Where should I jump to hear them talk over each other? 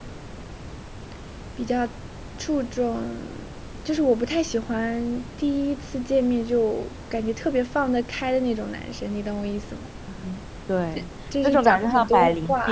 11.3 s

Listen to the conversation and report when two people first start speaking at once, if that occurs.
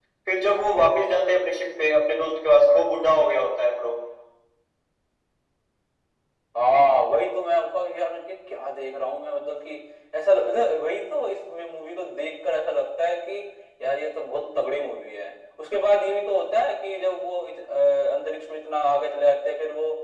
none

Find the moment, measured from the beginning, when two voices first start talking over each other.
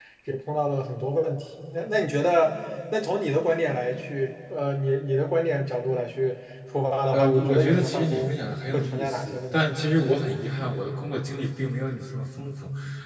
7.1 s

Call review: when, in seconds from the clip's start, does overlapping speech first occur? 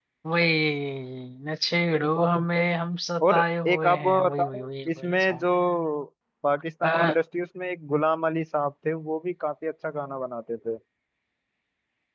3.3 s

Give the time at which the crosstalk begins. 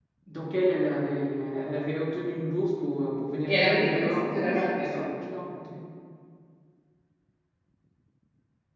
3.5 s

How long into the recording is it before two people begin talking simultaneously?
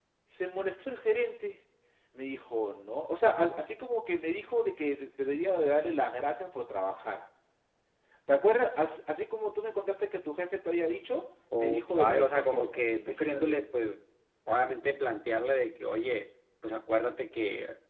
11.5 s

